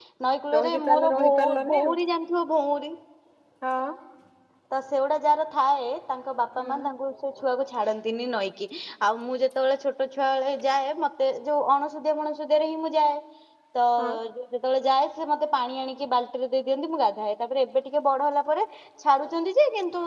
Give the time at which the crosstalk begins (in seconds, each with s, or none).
0.5 s